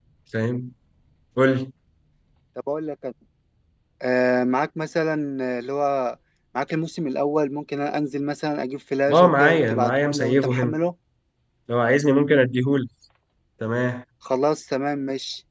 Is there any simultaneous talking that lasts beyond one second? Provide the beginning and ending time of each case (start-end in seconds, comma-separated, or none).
9.1-10.8